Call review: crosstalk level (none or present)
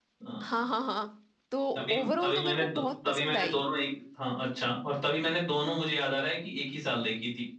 present